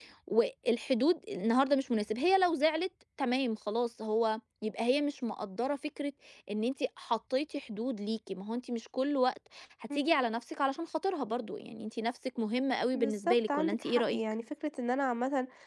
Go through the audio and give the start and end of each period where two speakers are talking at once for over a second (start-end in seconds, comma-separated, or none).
12.9-14.2